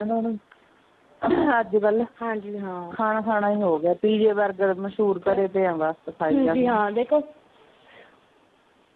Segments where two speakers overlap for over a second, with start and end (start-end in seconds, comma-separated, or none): none